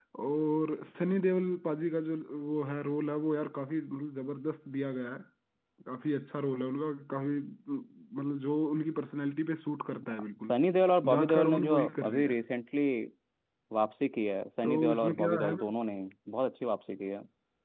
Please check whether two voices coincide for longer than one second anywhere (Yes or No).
Yes